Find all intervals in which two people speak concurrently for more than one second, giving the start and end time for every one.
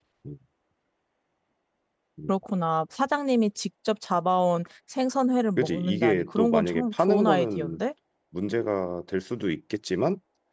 5.6-7.8

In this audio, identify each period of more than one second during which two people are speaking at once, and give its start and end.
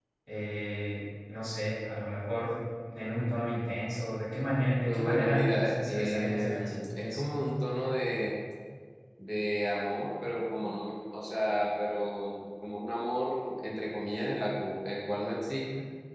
4.9-7.2

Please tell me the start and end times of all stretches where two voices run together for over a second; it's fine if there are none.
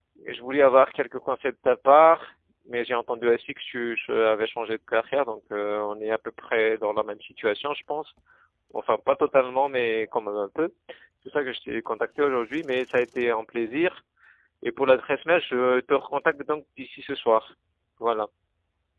none

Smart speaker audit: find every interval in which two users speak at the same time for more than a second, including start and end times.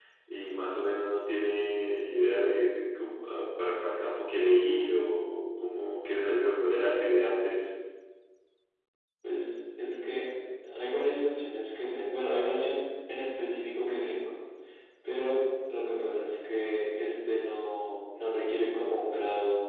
none

